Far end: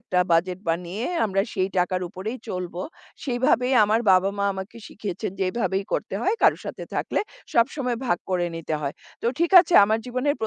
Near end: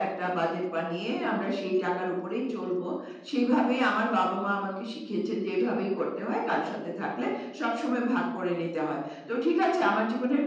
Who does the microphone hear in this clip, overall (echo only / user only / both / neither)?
echo only